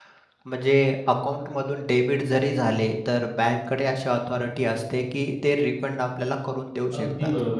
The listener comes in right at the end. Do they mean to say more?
Yes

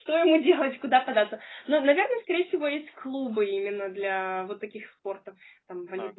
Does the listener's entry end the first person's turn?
No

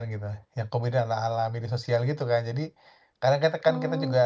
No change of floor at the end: Yes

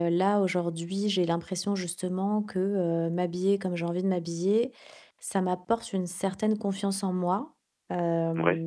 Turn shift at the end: No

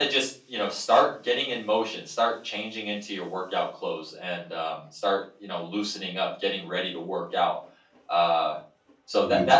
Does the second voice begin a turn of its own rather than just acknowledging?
No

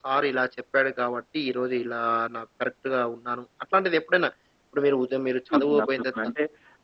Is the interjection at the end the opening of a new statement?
Yes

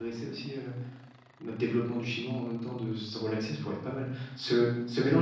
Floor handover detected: No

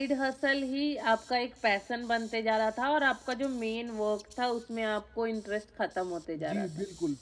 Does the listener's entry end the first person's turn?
Yes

